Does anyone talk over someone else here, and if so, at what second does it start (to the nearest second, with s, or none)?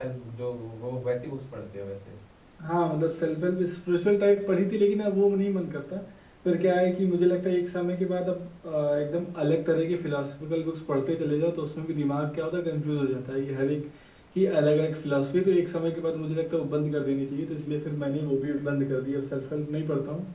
none